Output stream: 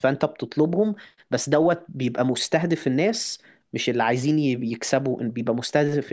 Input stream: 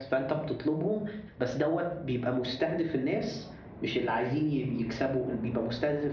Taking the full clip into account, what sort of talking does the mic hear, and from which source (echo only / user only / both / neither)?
echo only